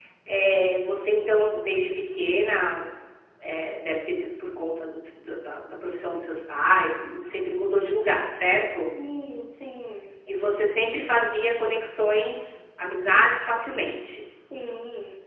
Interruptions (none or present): none